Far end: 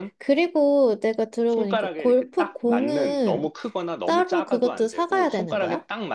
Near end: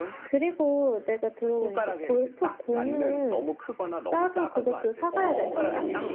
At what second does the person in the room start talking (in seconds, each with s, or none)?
5.1 s